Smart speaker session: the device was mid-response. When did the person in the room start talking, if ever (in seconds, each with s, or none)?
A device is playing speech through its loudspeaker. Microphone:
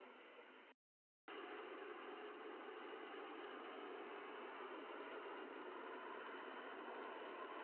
none